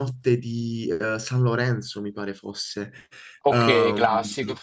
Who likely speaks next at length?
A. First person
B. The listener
A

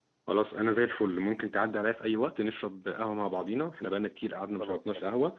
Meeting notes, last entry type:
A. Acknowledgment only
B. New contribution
A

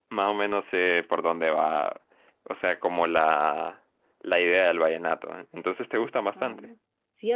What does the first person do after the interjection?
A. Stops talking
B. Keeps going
A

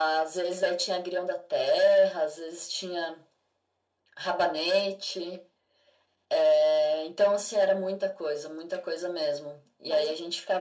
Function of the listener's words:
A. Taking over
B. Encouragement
B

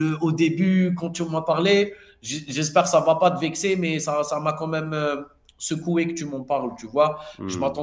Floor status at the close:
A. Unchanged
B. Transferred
A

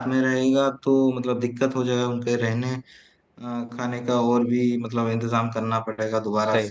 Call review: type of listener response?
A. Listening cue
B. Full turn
B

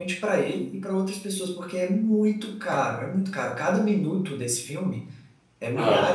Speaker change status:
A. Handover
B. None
B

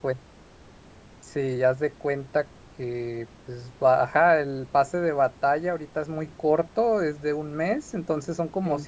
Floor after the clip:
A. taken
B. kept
B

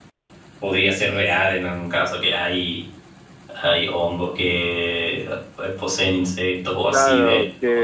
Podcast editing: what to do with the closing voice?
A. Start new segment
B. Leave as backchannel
A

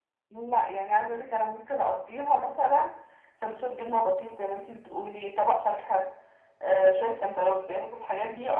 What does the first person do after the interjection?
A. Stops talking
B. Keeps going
B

